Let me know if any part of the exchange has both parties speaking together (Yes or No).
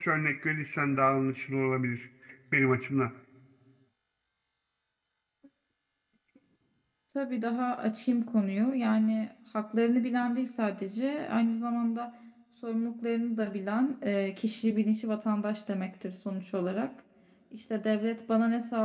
No